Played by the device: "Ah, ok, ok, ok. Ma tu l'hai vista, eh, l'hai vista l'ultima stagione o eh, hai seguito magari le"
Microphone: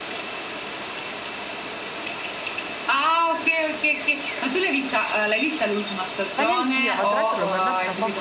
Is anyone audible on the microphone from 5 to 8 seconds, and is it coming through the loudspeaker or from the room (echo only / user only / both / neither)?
both